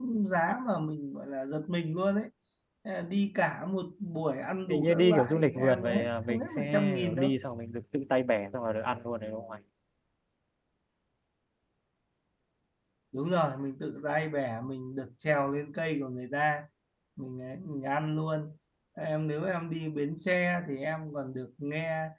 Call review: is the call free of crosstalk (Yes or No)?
No